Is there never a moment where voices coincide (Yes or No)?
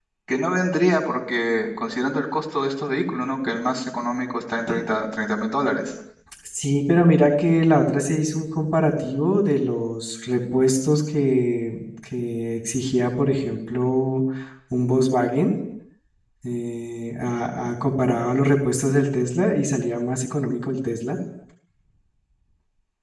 Yes